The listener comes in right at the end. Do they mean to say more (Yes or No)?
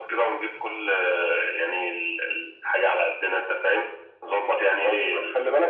Yes